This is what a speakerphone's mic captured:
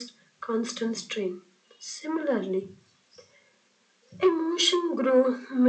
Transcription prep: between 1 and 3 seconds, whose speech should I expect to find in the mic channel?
echo only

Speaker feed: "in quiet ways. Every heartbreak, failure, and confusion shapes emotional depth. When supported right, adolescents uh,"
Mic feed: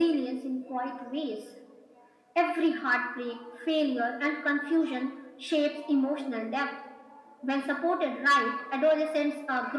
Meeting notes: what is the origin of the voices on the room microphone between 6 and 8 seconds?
echo only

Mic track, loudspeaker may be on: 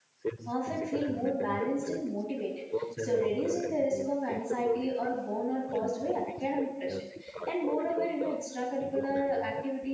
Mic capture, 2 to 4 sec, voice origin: both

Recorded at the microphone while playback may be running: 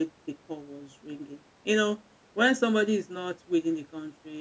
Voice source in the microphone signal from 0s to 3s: user only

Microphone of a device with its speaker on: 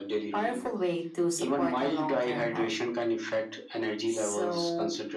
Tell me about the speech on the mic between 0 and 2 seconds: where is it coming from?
echo only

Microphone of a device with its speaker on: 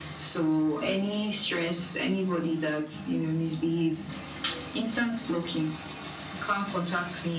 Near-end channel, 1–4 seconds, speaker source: echo only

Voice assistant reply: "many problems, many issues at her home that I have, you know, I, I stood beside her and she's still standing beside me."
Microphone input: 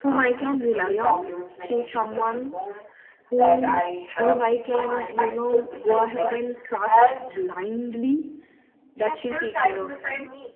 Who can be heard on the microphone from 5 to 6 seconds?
both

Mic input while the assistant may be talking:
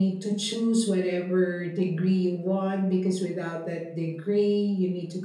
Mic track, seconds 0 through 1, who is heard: echo only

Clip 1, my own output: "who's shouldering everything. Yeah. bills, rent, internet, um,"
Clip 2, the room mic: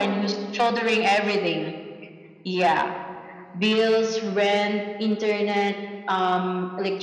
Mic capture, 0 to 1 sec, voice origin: echo only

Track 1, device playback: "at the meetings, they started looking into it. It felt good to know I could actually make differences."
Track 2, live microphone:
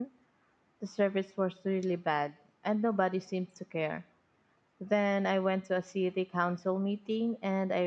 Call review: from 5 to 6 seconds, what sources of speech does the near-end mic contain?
user only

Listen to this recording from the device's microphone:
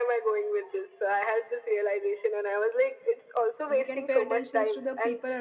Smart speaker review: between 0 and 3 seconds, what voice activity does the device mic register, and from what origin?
echo only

